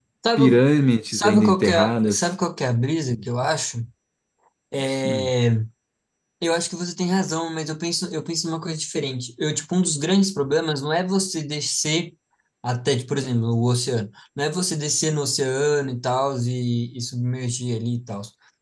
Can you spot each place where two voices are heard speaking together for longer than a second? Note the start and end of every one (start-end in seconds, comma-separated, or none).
1.1-2.3